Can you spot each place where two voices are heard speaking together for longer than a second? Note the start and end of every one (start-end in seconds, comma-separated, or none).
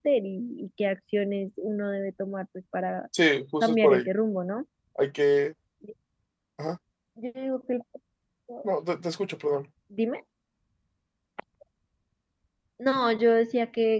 none